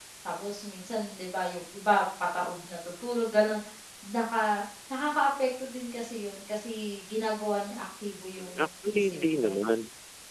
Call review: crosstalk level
present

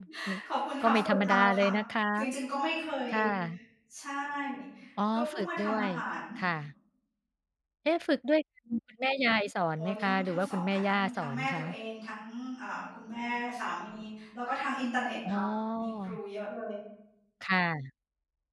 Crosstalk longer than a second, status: present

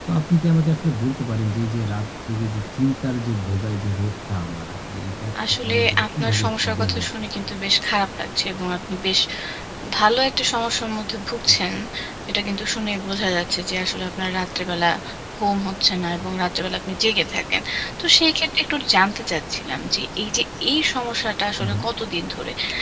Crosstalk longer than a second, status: present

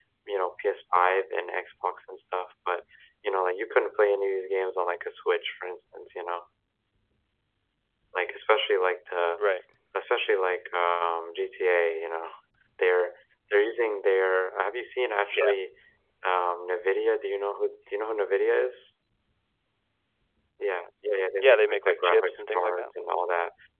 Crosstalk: present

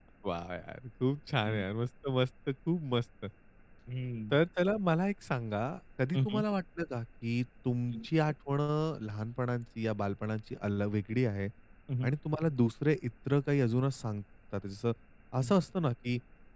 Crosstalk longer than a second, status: none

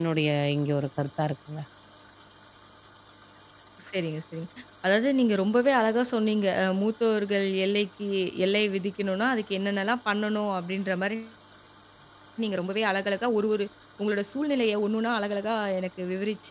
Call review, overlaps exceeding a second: none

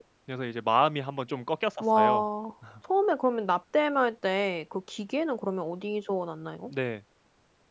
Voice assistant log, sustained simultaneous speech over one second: none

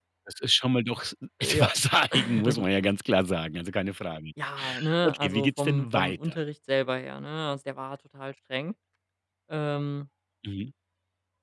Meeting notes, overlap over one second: present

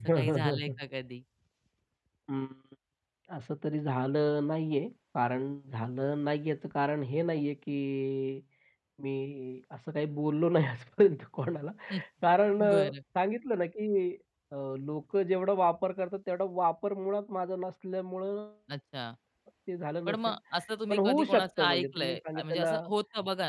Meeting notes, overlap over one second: present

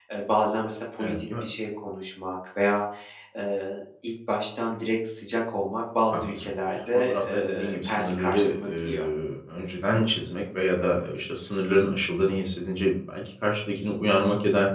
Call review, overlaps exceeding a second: present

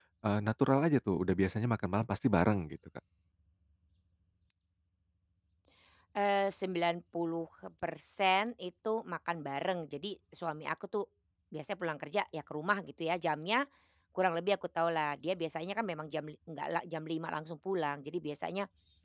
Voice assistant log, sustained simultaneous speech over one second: none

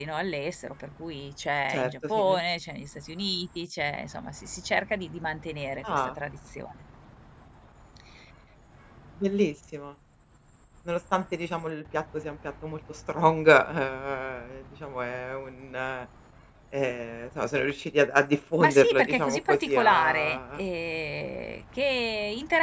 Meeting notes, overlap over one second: present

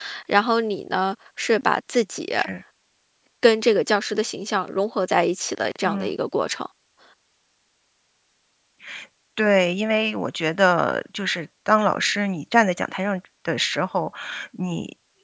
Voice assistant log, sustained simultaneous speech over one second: none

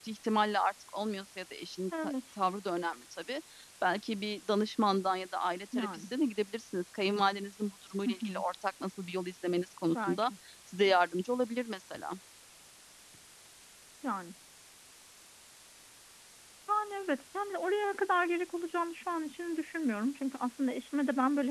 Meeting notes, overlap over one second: none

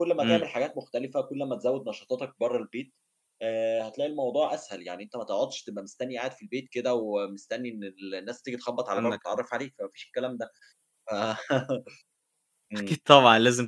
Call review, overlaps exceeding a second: none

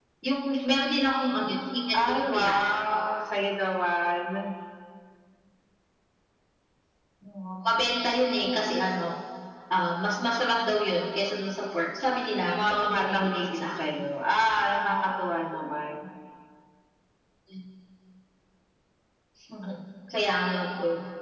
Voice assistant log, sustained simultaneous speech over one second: present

